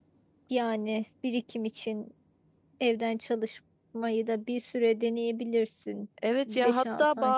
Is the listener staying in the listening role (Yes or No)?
No